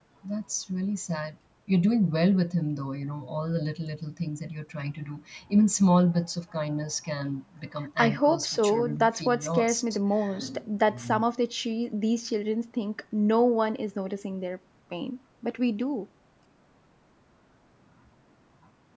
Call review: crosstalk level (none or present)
present